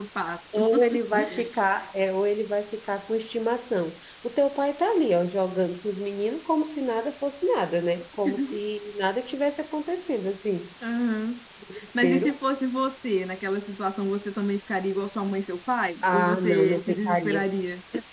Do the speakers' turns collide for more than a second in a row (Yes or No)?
Yes